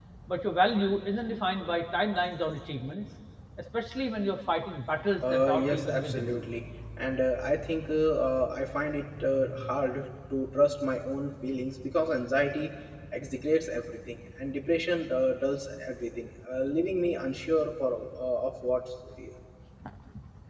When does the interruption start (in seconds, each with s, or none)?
5.0 s